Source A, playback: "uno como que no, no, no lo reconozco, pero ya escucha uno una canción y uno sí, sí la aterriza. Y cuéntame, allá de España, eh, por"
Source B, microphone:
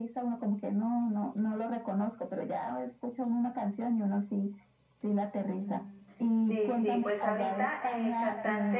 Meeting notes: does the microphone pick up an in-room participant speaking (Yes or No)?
Yes